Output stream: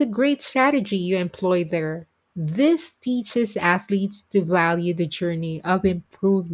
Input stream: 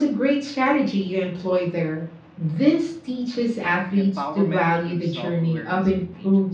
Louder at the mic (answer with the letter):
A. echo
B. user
A